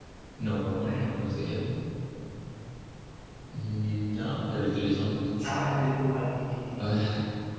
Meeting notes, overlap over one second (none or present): none